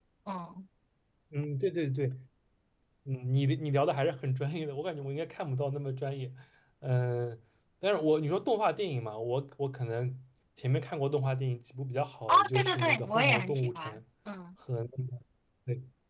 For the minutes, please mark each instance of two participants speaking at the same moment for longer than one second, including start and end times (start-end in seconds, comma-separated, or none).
12.3-13.9